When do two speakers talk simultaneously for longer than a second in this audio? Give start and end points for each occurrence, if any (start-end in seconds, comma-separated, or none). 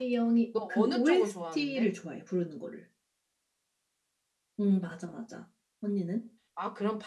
0.6-1.9